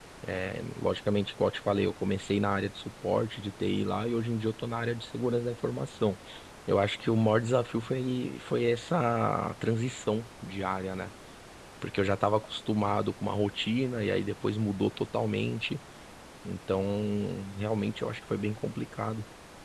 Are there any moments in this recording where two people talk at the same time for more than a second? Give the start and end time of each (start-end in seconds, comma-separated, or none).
none